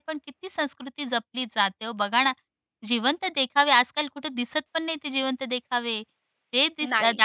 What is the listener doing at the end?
listening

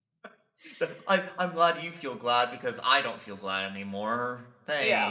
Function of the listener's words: taking over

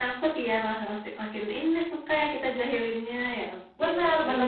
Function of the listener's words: taking over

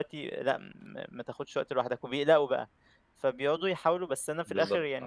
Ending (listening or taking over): listening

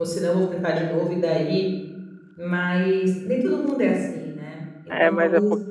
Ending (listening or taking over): taking over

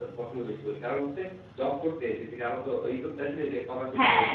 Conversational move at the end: taking over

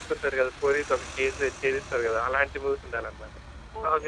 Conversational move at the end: taking over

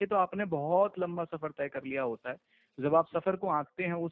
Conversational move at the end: listening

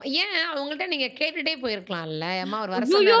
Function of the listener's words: taking over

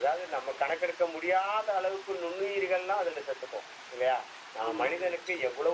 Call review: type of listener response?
listening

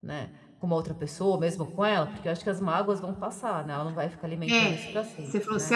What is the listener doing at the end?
taking over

